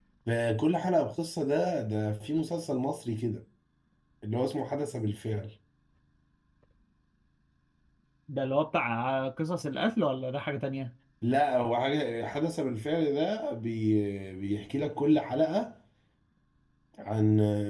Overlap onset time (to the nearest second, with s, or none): none